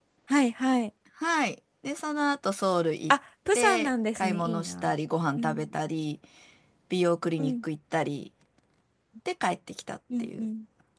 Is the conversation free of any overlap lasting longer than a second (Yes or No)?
No